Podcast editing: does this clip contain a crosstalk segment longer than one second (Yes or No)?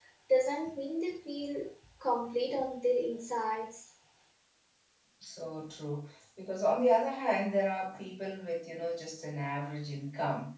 No